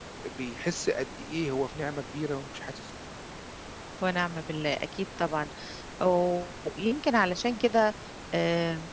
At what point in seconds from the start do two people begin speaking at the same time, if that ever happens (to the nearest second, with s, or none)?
none